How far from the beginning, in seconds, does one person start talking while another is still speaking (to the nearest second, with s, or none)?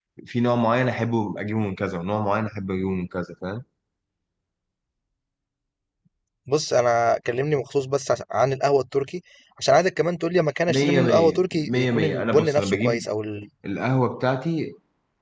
11 s